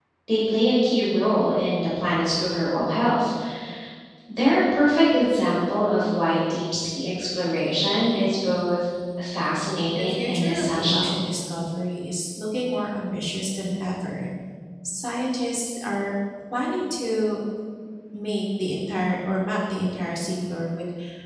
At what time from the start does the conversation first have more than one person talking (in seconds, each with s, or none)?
9.9 s